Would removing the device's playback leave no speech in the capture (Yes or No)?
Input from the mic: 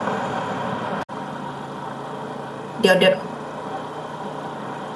No